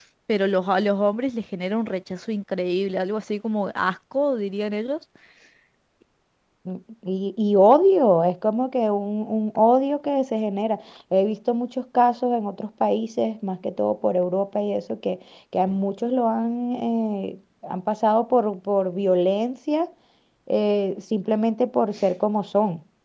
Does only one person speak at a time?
Yes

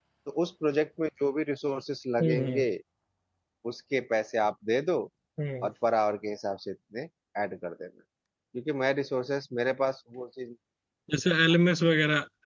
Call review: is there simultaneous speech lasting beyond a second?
No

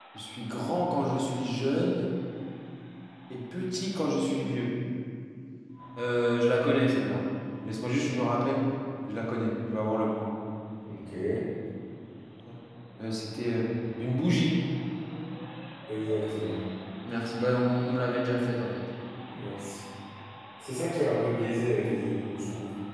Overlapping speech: No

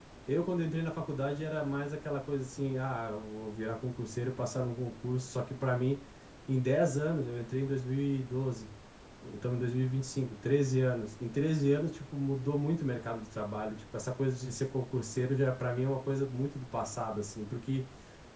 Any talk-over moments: No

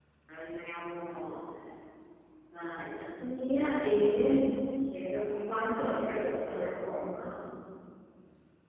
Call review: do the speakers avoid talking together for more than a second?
No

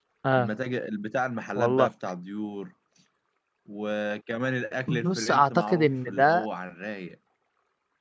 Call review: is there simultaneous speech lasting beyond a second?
Yes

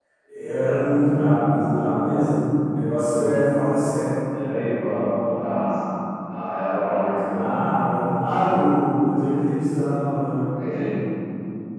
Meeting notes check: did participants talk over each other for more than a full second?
No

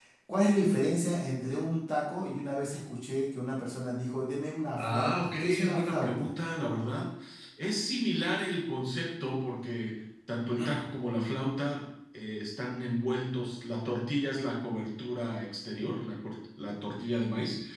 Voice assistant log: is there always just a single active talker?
No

